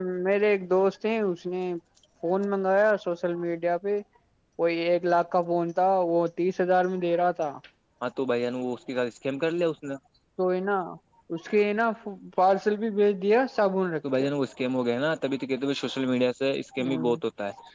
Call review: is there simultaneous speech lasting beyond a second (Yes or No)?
No